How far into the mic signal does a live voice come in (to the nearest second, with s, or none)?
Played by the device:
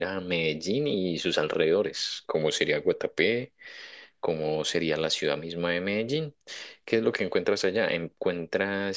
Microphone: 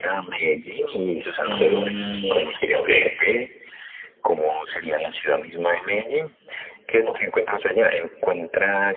1 s